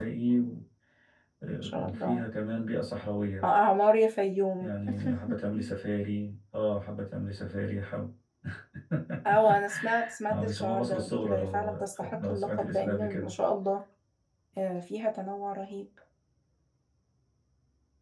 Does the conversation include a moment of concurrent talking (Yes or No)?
Yes